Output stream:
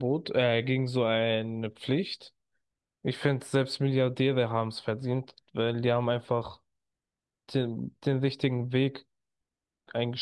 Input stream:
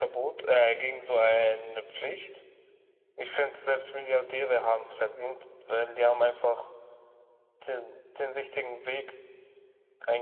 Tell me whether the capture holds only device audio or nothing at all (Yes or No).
Yes